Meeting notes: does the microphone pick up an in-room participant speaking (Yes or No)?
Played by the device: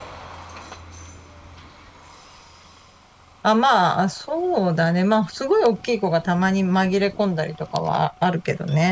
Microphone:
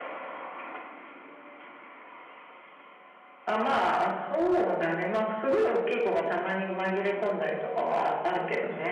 No